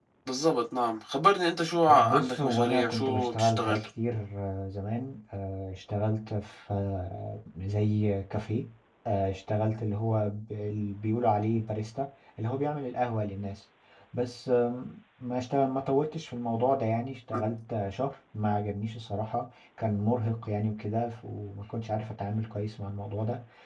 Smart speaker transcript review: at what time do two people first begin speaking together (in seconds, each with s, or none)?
1.9 s